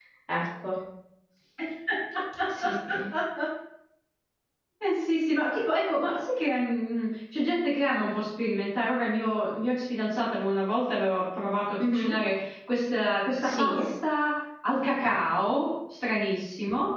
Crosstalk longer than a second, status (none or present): none